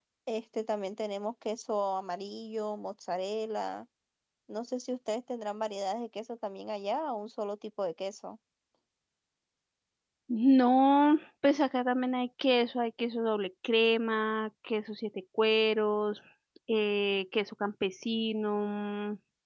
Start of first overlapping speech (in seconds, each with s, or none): none